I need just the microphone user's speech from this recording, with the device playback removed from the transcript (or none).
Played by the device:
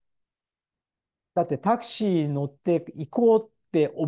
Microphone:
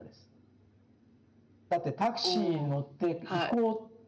おおはい。